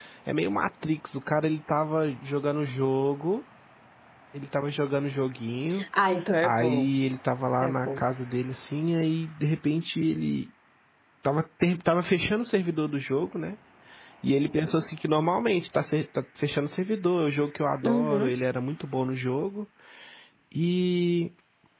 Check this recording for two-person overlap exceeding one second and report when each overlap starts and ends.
none

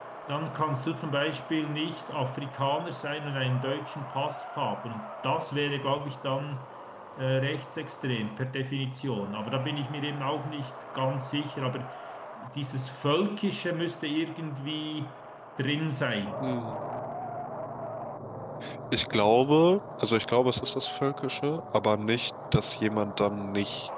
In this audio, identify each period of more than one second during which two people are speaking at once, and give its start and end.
none

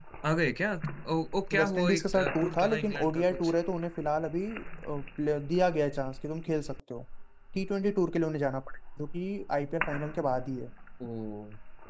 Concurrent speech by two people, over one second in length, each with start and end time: 1.6-3.5

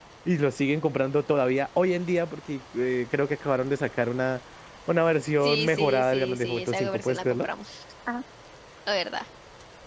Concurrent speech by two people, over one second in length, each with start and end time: 5.4-7.5

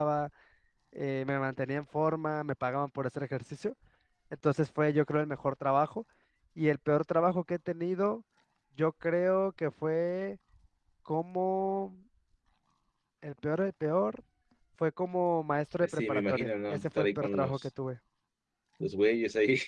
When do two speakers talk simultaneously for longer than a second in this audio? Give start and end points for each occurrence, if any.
15.8-17.7

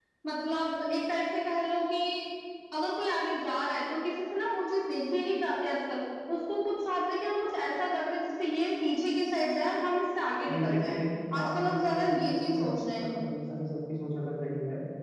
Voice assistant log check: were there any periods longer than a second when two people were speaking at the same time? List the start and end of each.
11.4-13.1

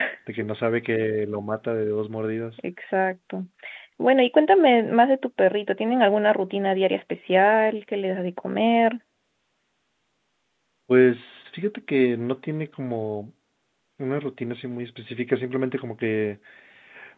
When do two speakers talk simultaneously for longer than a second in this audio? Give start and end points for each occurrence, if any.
none

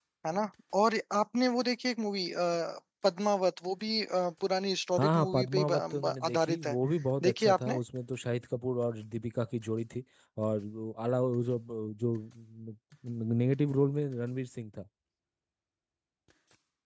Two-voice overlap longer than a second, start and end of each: 5.0-6.8

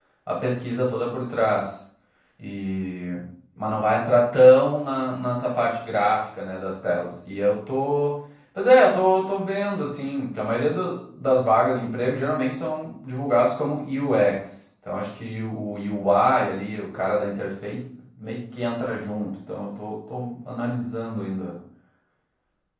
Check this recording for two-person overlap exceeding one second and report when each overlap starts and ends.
none

